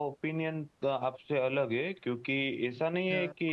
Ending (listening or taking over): listening